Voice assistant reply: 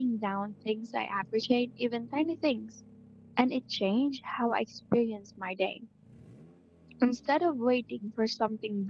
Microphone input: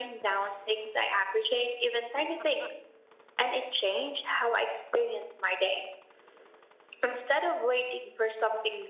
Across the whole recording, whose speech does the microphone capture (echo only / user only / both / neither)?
echo only